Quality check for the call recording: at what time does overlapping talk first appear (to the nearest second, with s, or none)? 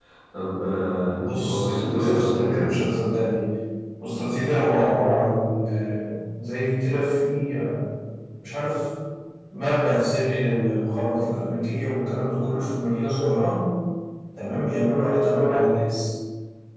1 s